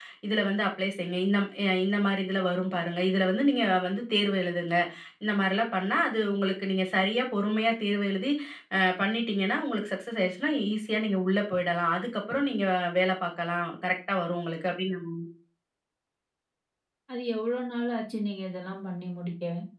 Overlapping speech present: No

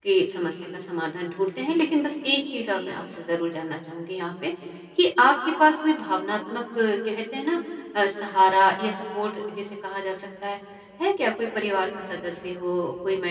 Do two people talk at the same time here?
No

